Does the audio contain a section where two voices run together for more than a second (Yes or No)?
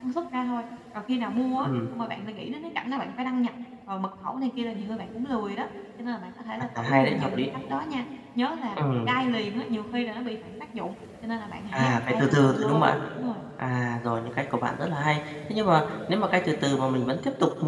Yes